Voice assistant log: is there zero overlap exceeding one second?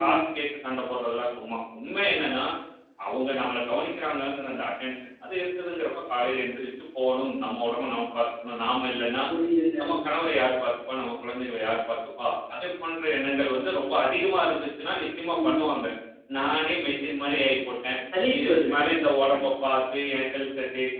Yes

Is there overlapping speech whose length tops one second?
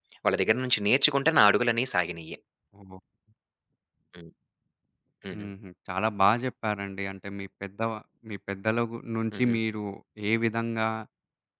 No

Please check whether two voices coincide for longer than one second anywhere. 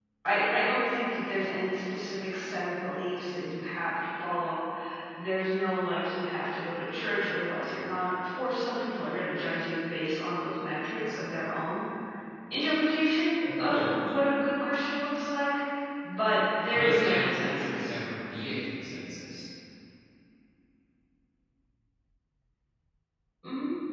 Yes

